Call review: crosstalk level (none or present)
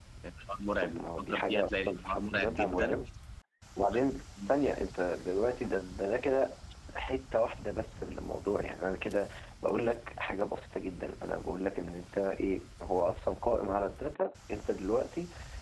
present